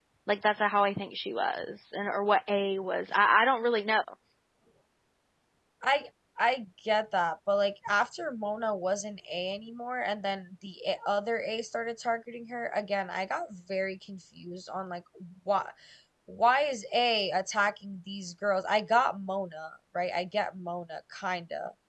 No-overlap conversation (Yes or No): Yes